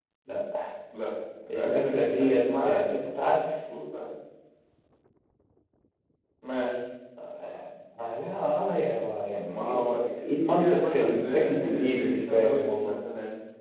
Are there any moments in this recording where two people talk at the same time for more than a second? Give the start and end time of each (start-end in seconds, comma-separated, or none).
1.5-2.8, 9.4-12.9